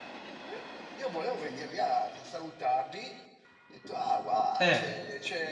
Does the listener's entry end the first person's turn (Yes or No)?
No